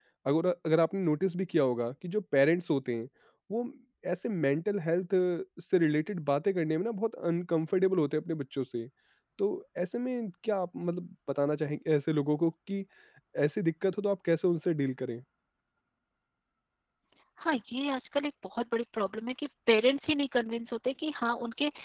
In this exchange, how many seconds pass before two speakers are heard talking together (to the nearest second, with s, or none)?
none